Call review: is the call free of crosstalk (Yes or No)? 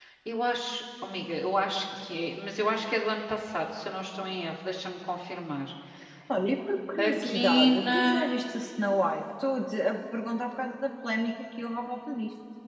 No